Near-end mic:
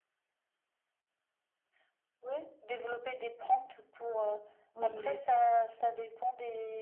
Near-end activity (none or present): present